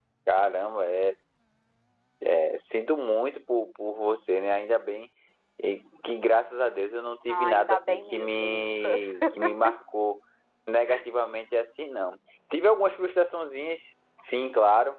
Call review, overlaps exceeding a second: present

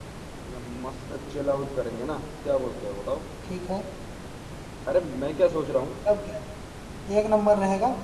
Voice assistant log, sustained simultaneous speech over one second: none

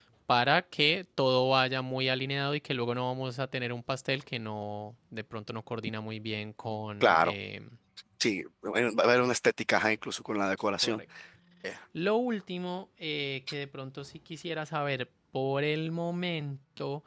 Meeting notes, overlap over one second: none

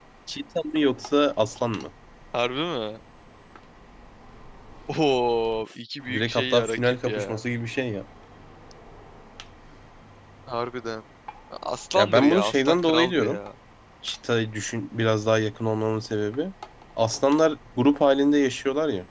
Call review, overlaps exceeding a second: present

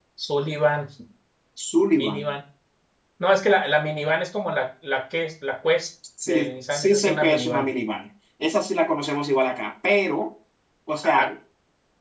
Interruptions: present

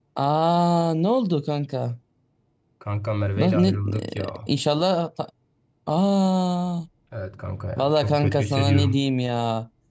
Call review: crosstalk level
present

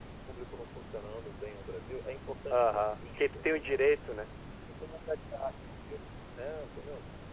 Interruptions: present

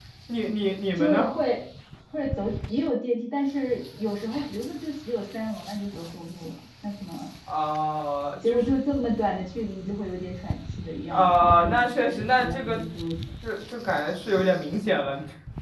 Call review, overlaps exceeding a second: present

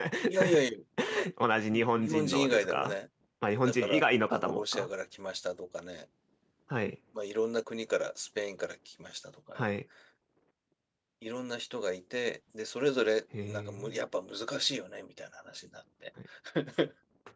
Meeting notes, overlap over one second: present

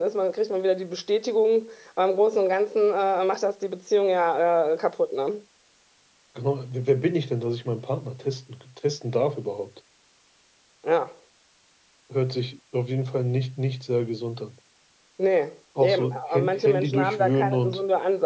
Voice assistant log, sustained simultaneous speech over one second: present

